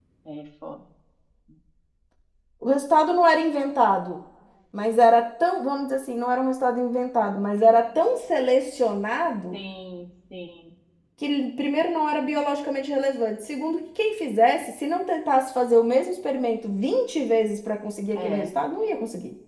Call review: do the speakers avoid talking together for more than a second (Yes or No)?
Yes